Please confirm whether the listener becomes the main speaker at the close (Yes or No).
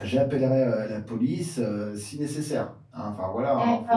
Yes